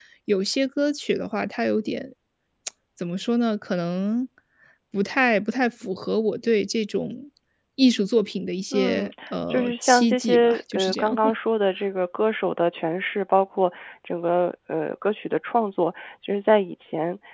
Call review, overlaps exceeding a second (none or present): present